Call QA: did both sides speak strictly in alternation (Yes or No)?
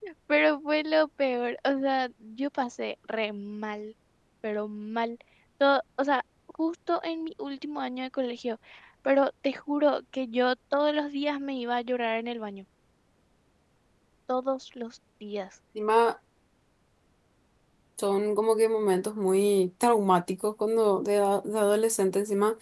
Yes